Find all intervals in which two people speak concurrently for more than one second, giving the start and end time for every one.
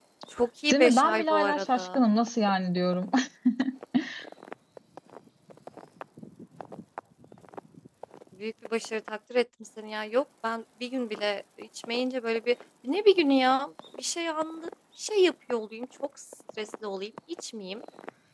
0.7-2.0

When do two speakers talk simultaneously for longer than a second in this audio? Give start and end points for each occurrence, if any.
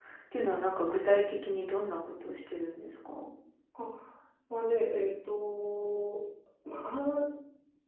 none

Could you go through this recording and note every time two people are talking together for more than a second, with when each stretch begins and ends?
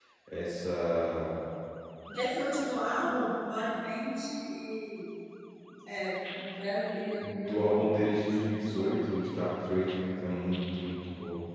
7.2-8.9

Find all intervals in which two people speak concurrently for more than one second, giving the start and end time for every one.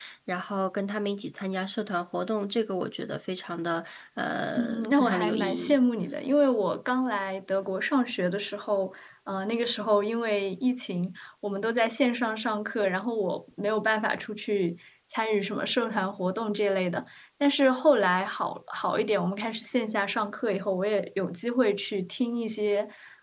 4.6-5.8

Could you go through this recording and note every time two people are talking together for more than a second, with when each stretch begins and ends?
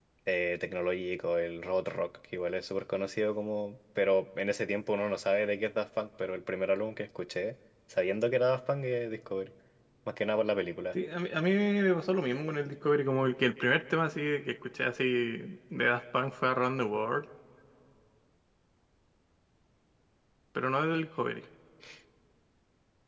none

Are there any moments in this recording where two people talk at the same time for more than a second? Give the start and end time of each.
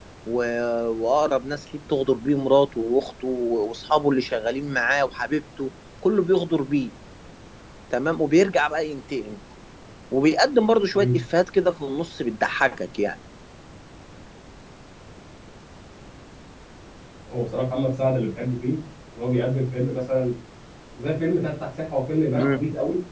none

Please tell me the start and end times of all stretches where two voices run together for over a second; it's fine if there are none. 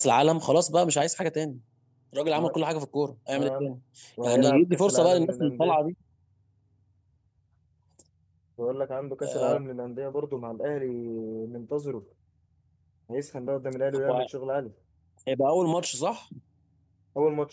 4.2-5.8

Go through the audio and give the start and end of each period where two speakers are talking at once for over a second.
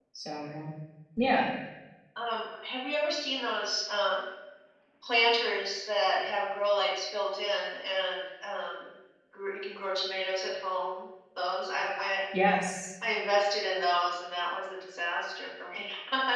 none

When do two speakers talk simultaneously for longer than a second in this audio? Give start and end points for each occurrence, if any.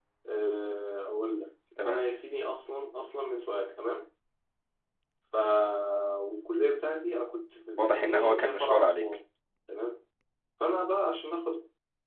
7.8-9.0

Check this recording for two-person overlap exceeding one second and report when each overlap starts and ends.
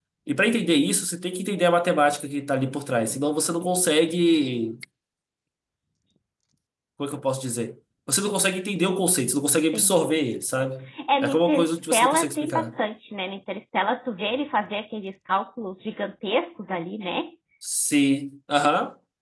11.2-12.7

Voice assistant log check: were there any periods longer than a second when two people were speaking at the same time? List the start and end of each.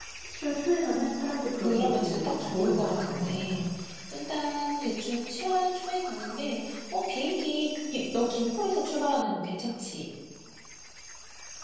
1.6-3.6

